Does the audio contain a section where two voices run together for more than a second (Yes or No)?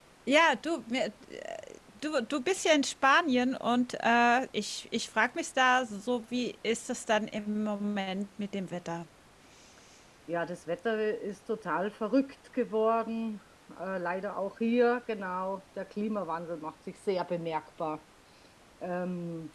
No